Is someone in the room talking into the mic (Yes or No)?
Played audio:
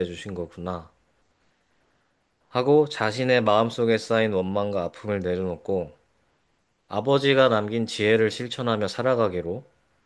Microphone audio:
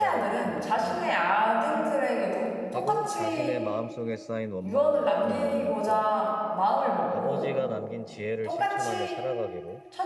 Yes